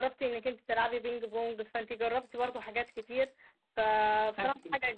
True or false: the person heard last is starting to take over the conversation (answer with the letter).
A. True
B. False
B